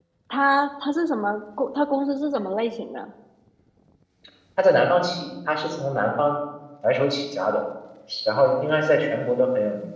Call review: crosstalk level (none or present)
none